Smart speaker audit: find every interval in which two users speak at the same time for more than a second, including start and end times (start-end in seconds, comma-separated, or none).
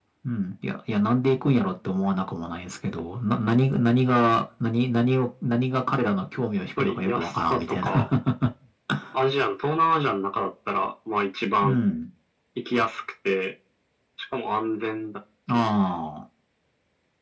6.8-8.1